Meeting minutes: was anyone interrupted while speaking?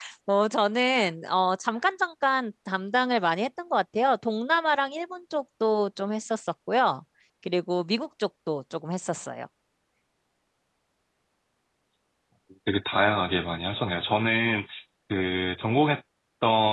No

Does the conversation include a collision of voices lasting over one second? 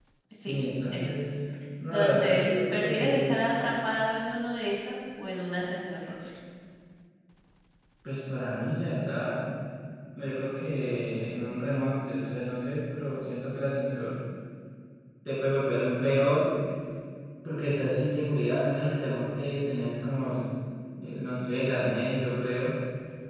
Yes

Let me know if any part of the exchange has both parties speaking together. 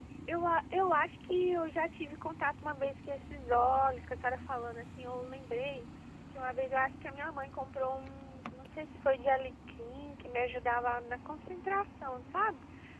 No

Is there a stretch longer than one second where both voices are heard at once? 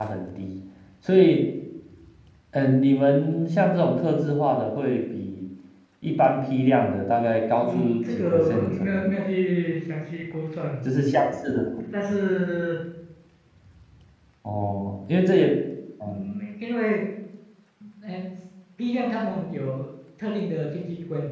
Yes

